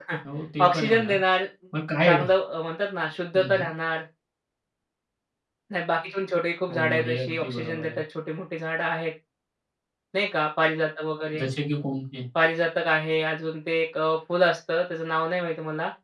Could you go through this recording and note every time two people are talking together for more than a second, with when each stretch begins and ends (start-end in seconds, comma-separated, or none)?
6.7-8.0